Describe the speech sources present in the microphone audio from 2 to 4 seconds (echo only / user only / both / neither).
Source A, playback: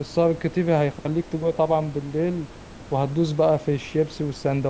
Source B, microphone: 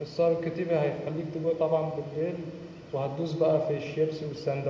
echo only